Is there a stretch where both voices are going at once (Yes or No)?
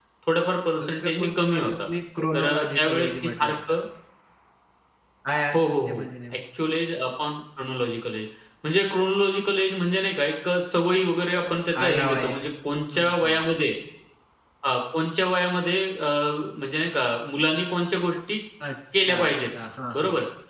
Yes